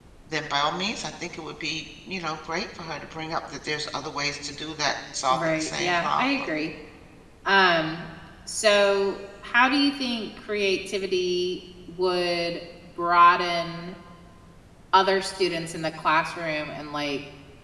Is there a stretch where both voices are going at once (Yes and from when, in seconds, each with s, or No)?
Yes, from 5.3 s